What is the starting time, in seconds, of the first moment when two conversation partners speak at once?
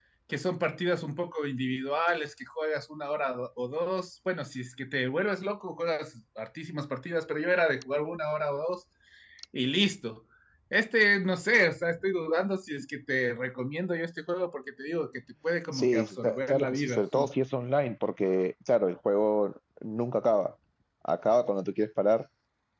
16 s

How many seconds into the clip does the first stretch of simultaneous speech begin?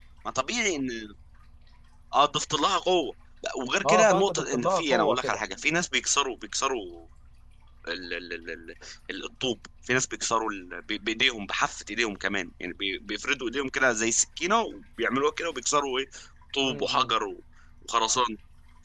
4 s

